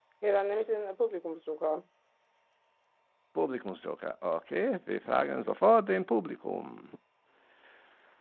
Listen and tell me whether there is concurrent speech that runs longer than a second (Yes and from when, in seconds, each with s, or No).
No